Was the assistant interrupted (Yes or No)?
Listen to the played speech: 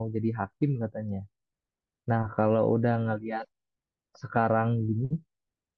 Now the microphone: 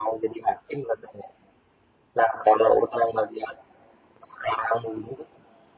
No